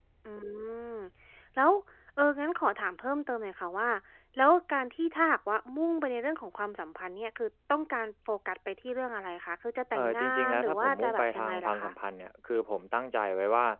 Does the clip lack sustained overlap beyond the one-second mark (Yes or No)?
No